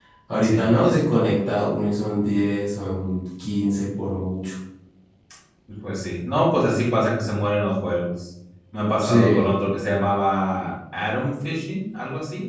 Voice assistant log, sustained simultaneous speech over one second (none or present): none